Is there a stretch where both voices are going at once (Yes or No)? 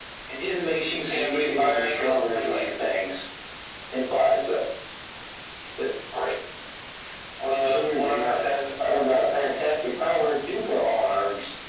Yes